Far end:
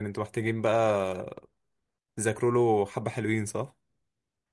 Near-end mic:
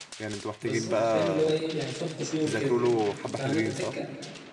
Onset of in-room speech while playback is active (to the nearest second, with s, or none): 1 s